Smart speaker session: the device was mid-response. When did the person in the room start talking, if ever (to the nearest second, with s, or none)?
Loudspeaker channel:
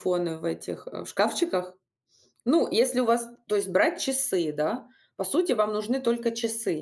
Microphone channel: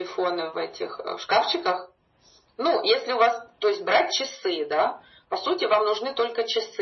none